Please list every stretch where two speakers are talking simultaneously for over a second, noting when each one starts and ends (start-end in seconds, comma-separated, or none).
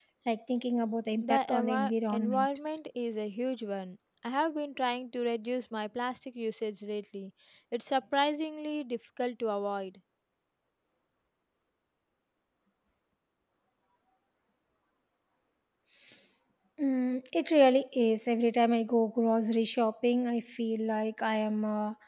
1.2-2.5